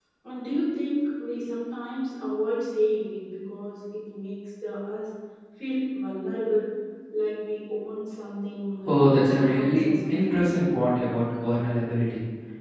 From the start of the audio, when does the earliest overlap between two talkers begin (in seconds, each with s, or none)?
8.8 s